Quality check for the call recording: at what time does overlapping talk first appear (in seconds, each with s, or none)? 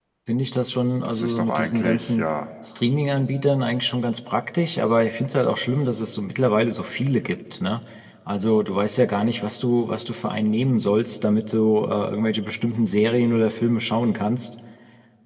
1.0 s